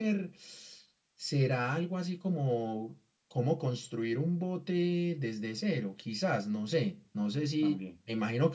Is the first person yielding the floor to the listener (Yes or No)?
No